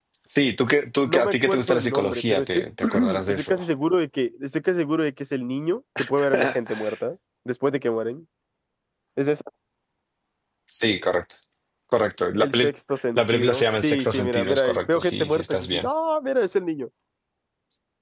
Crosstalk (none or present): present